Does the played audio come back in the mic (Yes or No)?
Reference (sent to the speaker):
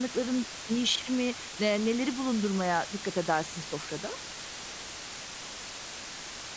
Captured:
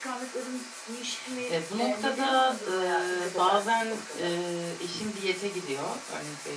Yes